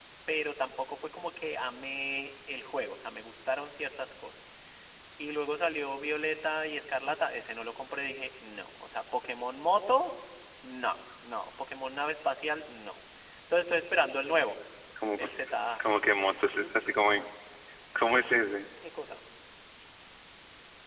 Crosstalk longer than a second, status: none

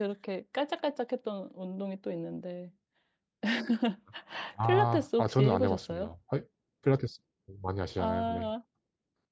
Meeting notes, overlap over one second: present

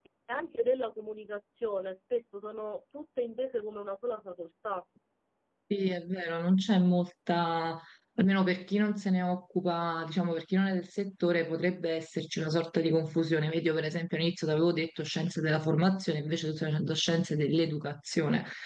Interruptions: none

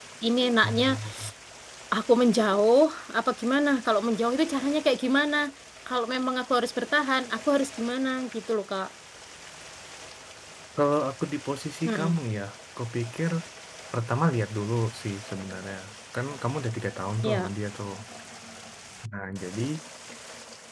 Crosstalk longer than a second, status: none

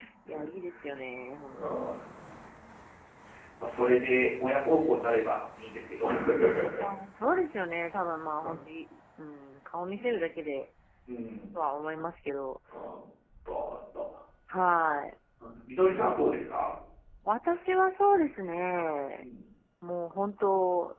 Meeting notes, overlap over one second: none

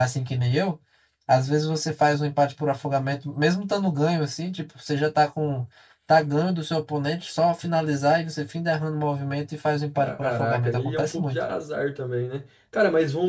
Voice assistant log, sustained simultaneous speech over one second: present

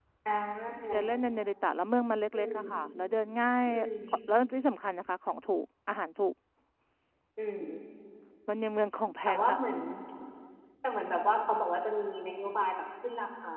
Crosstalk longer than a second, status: none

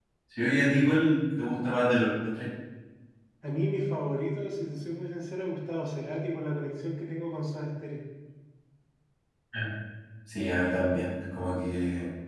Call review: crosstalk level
none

